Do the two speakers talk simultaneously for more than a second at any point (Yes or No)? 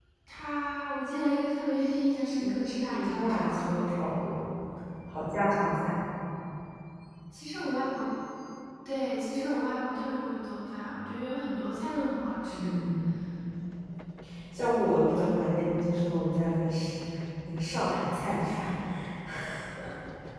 Yes